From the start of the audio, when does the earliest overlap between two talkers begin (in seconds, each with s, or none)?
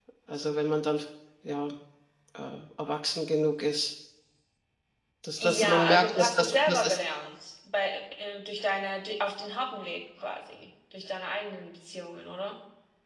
5.4 s